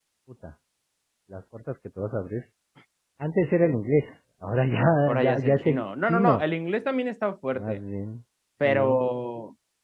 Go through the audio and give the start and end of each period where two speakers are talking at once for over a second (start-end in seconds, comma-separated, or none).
5.1-6.4